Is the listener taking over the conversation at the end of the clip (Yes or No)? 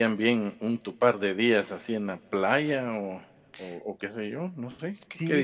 Yes